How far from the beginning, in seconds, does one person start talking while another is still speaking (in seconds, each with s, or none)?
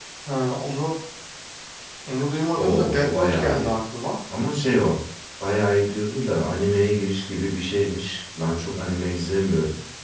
2.5 s